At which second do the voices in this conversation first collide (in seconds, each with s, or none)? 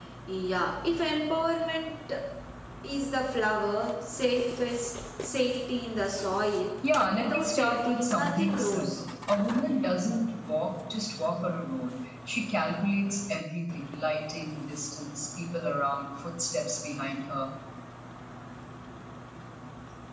7.1 s